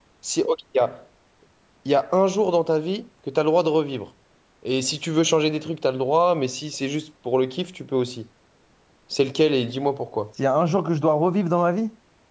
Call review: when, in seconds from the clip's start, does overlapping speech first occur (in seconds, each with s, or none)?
none